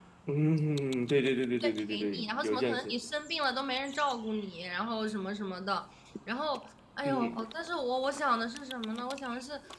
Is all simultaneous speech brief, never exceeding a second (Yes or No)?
No